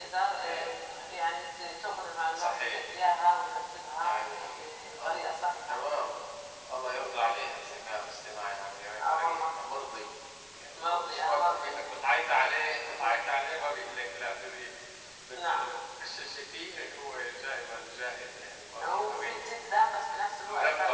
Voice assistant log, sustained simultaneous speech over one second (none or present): present